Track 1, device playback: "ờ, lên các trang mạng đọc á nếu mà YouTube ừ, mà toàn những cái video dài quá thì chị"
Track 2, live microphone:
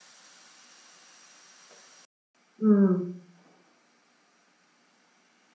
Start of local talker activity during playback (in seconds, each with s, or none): 2.6 s